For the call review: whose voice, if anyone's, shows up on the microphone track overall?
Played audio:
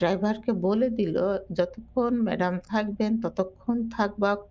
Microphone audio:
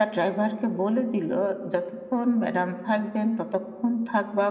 echo only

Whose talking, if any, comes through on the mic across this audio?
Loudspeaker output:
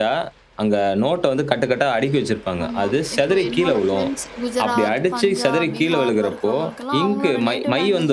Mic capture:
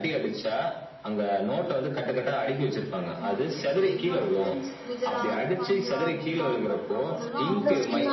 both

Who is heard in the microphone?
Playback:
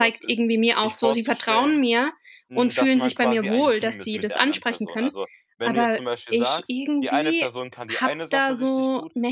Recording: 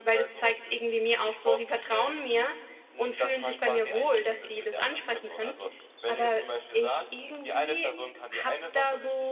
echo only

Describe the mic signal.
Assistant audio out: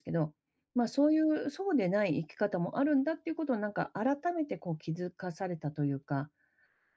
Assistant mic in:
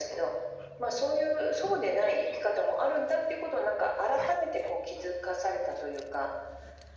echo only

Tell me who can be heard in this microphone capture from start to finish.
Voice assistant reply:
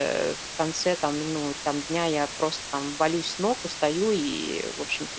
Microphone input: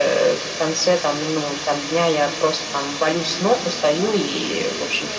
both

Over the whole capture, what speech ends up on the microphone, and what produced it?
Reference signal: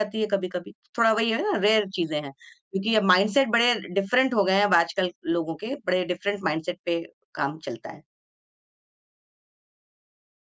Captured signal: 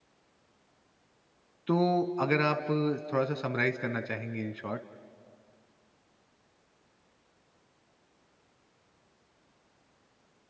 user only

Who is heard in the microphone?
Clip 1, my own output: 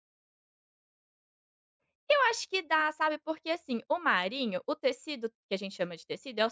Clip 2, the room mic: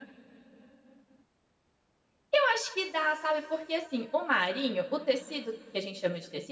echo only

